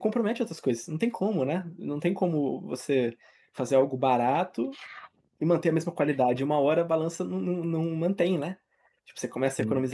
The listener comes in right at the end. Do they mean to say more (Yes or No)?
No